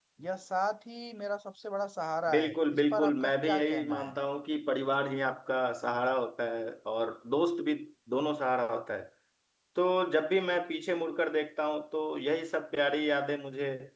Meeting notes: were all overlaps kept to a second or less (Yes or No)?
No